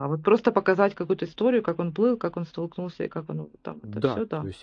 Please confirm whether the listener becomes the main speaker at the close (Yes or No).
Yes